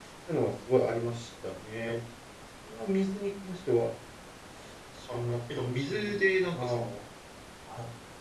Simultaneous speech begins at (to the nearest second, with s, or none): 5 s